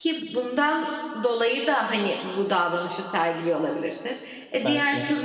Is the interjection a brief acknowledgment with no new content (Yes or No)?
Yes